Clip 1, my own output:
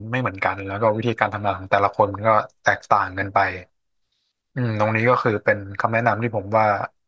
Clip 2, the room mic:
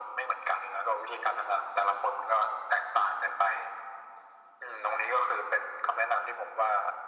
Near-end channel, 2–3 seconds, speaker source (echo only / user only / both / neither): echo only